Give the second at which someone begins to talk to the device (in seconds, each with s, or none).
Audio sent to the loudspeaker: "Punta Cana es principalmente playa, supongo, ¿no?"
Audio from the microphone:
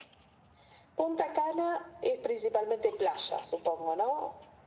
none